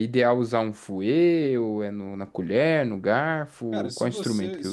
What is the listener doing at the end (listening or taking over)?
taking over